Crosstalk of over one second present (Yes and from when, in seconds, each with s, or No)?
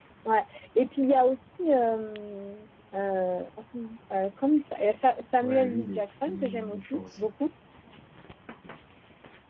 Yes, from 5.4 s